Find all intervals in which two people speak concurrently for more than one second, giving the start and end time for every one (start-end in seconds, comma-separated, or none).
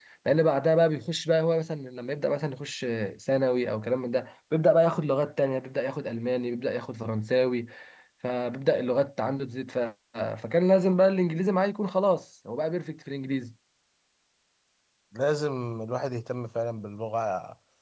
none